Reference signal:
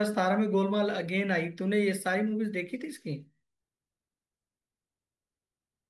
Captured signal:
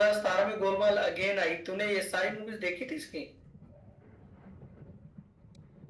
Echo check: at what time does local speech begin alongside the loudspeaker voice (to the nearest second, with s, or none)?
none